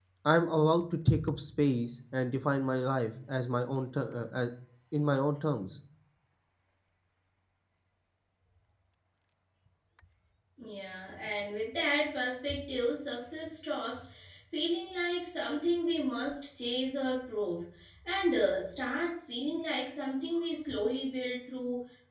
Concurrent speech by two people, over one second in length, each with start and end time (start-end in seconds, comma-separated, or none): none